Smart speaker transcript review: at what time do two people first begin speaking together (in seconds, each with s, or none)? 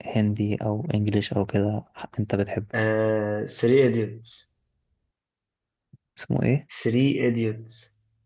none